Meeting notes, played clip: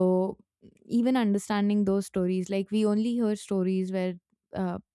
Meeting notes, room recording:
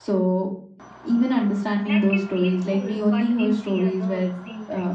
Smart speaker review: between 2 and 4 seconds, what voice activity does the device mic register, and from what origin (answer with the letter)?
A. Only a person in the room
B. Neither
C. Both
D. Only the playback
C